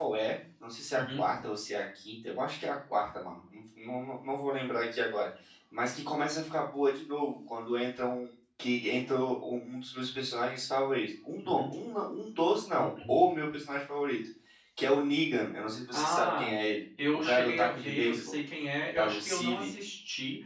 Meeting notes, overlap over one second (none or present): present